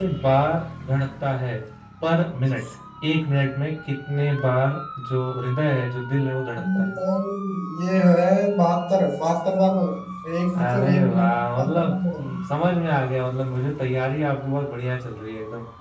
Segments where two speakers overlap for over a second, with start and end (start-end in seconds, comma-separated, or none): 10.6-12.4